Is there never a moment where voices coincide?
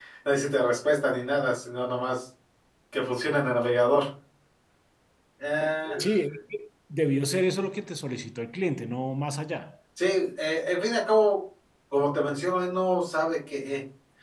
Yes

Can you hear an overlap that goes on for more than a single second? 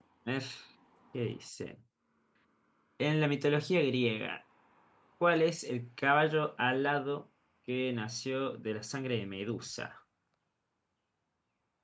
No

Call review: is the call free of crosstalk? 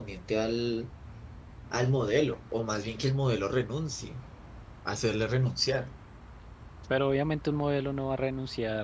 Yes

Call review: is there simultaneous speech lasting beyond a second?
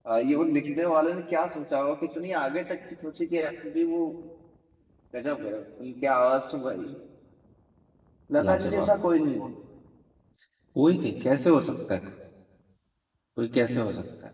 No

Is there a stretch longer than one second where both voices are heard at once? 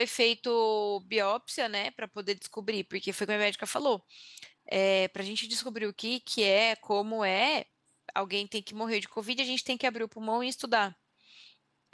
No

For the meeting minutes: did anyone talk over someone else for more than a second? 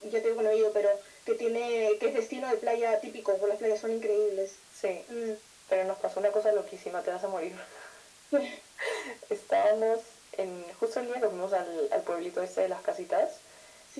No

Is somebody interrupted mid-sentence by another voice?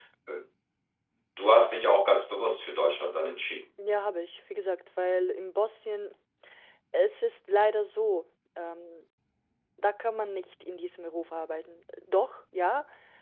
No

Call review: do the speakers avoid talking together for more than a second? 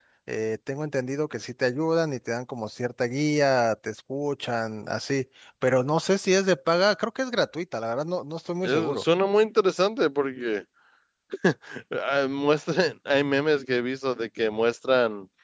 Yes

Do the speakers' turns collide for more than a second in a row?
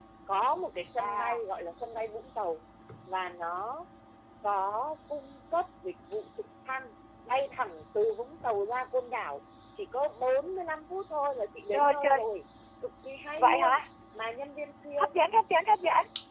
No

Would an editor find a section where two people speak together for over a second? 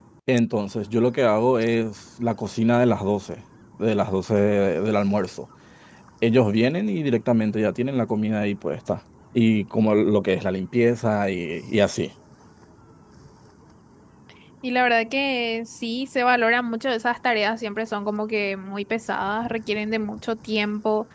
No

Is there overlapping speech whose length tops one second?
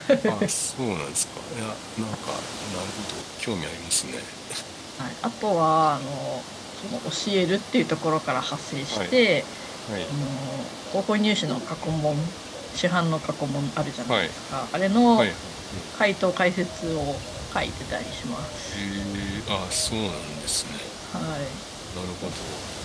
No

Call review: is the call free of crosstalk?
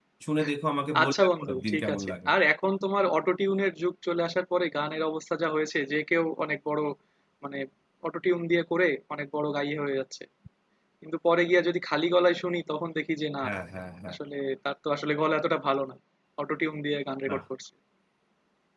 No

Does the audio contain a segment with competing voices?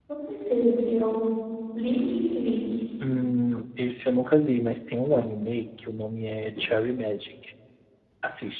No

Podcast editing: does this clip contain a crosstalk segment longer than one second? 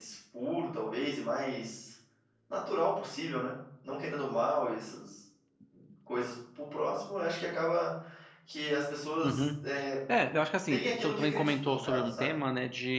Yes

